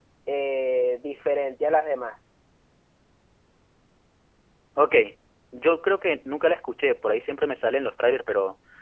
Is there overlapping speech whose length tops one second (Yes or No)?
No